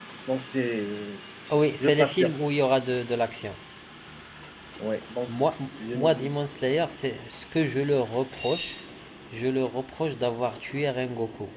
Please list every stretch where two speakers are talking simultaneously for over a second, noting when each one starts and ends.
none

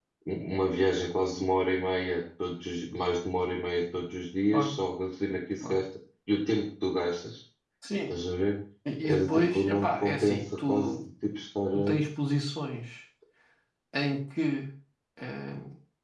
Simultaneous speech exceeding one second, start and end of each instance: 9.0-10.9

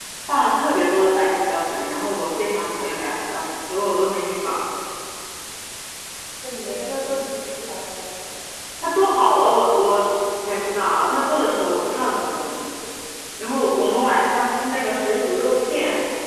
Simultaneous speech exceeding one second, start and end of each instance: none

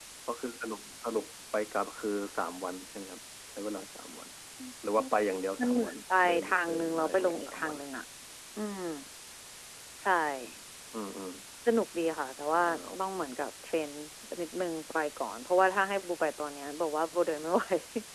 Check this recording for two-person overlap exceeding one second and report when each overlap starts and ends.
5.6-7.8

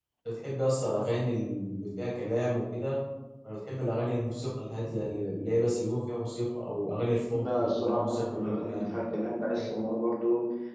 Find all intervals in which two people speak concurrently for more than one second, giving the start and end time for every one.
7.3-8.9

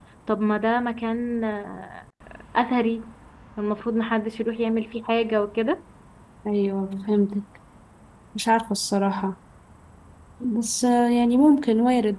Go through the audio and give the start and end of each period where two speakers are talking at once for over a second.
none

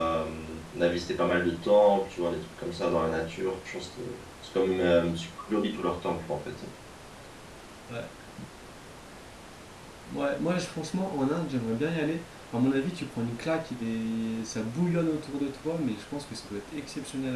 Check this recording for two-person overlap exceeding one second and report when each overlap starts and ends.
none

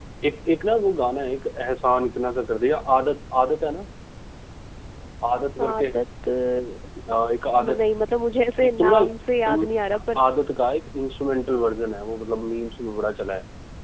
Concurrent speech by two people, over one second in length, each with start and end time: none

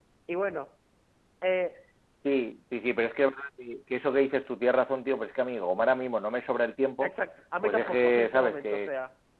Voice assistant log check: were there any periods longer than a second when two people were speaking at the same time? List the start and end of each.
7.6-8.9

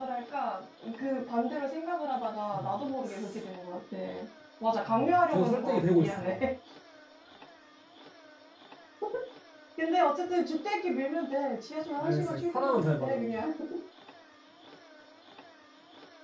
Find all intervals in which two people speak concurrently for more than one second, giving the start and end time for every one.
4.8-6.4, 12.0-13.4

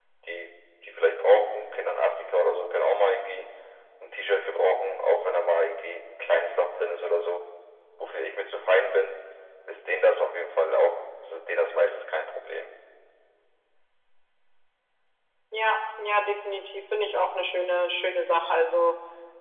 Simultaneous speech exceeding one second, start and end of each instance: none

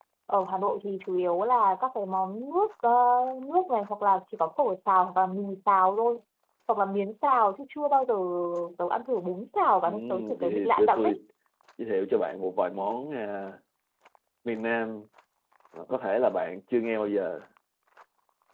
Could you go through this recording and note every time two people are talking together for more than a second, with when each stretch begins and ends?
9.8-11.2

